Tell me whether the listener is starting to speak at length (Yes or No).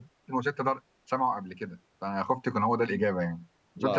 No